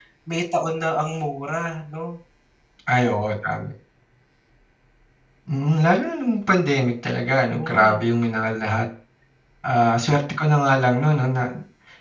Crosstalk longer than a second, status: none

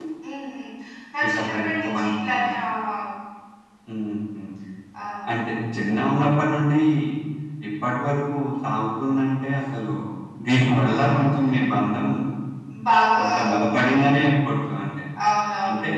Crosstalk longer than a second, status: present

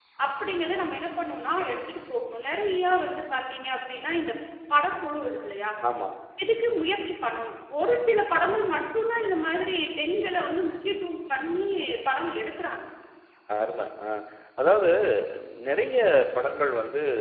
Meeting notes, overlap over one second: none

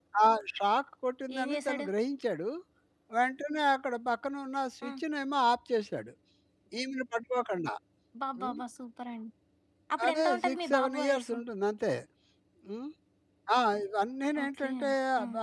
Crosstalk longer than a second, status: present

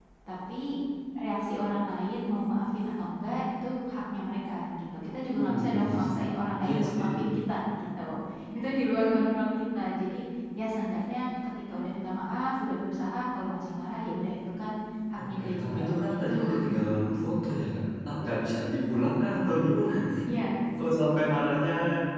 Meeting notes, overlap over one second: present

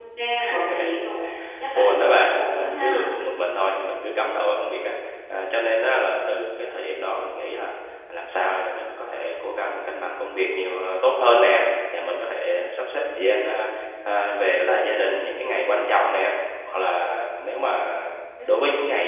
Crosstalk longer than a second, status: present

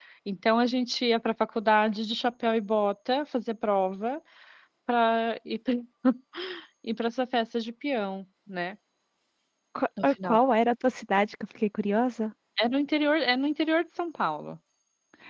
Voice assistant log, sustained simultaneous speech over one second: none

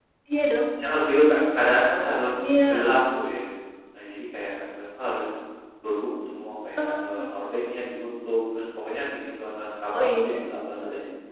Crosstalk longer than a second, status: none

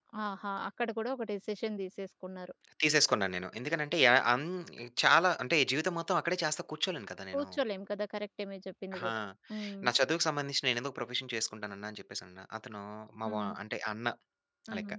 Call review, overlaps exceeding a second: none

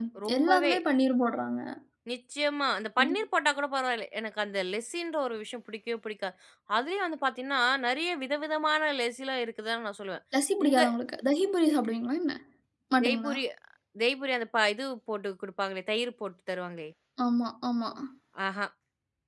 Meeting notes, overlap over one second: none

